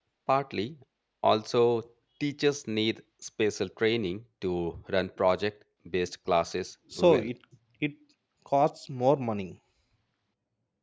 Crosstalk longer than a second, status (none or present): none